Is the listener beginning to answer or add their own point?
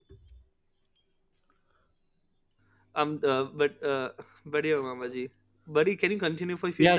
Yes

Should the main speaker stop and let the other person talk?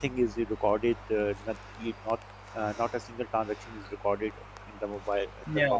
Yes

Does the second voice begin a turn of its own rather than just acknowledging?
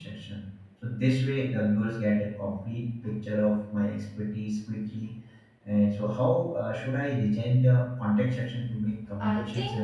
Yes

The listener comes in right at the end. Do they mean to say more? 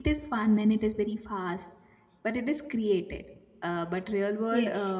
No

